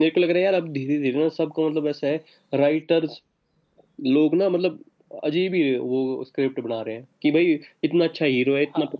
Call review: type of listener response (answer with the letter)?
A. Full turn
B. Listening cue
B